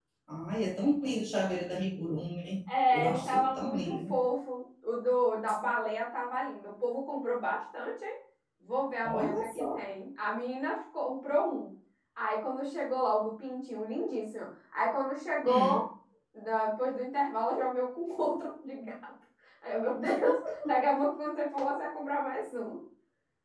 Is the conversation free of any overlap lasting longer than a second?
No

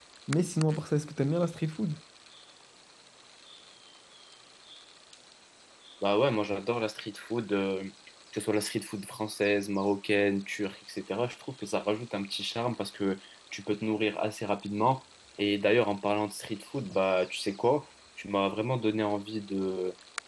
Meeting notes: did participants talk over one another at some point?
No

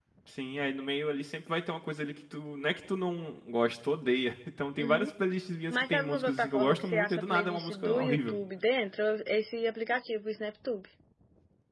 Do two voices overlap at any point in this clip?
Yes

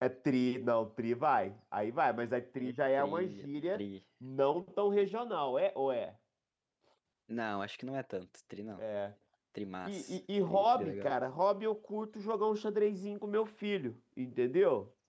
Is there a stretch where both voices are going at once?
Yes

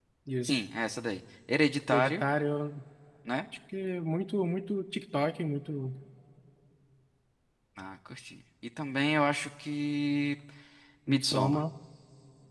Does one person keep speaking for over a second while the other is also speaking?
No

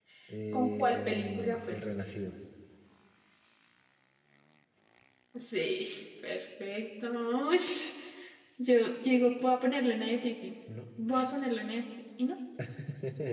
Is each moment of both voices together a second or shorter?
No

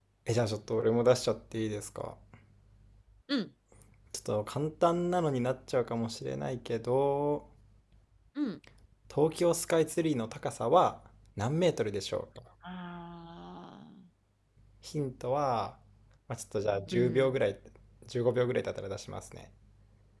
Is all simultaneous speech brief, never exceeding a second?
Yes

